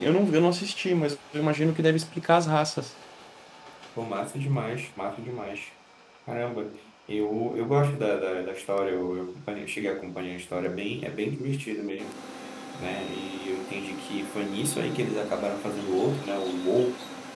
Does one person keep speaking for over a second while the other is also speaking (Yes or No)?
No